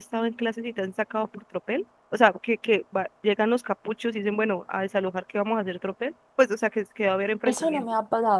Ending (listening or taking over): taking over